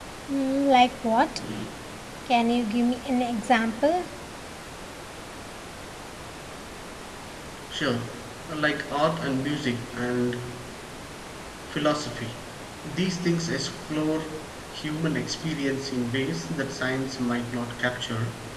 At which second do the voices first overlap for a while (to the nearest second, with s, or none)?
none